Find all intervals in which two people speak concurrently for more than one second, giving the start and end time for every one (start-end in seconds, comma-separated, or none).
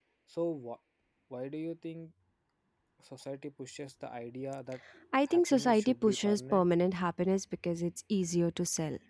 5.3-6.7